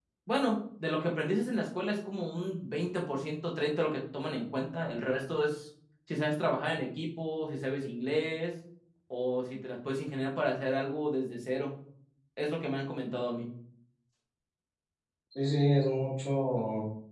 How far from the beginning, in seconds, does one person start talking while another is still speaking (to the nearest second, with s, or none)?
none